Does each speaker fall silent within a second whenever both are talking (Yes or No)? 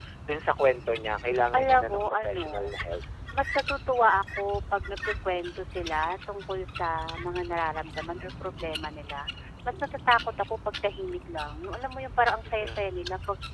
No